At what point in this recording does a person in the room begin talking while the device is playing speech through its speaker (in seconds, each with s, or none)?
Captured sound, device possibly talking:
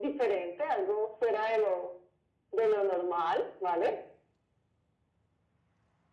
none